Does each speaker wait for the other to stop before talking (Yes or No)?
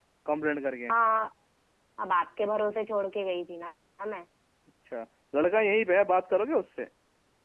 Yes